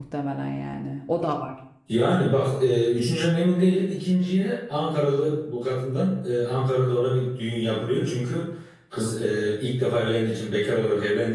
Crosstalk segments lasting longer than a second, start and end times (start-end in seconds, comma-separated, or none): none